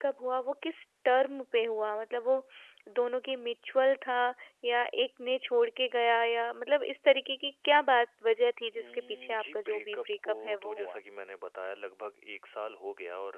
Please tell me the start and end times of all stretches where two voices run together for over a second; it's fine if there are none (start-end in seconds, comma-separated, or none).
8.8-11.0